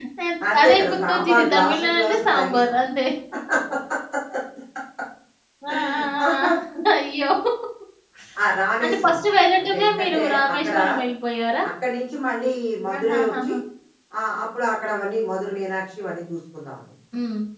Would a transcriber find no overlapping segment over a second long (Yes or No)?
No